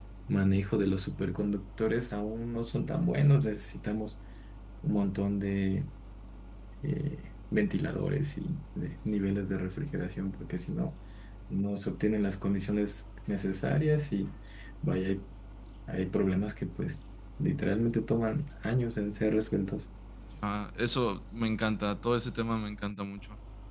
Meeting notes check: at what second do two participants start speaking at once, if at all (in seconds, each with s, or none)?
none